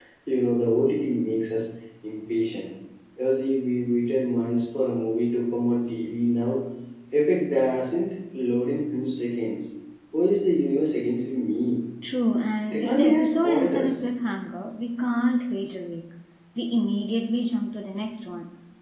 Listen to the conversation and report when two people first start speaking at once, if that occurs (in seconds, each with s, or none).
12.7 s